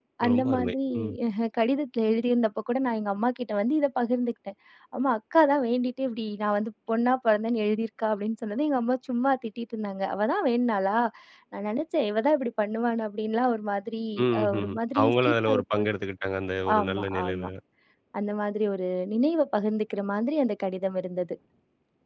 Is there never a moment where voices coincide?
No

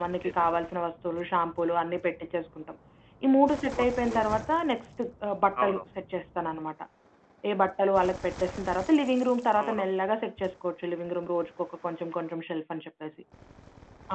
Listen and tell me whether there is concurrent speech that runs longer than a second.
No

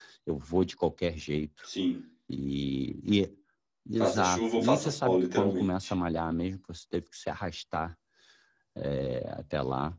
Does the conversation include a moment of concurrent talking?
Yes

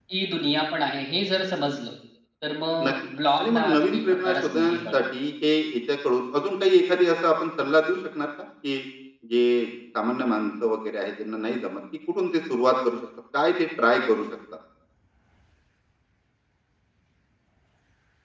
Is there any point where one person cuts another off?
Yes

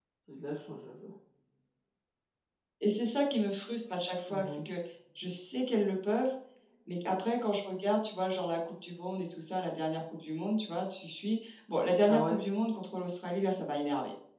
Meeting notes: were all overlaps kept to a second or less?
Yes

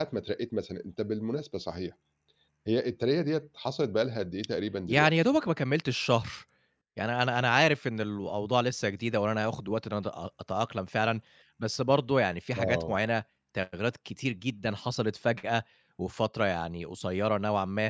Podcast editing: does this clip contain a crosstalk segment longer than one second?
No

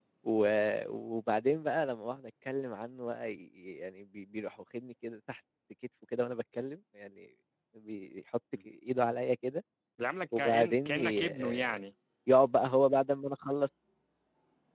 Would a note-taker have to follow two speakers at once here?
Yes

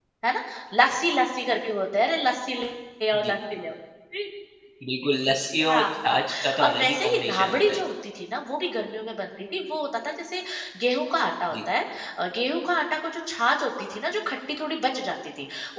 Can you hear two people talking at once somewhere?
Yes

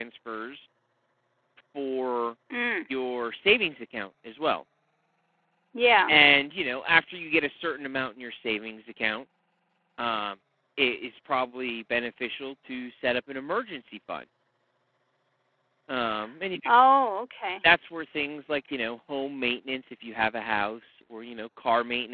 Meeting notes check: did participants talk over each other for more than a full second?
No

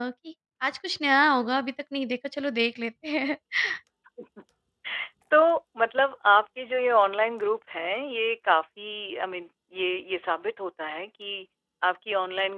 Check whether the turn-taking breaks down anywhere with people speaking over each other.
No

